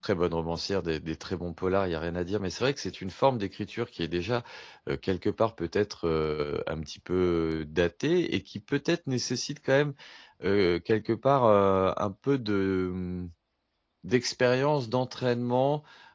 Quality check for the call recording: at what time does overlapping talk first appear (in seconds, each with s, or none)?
none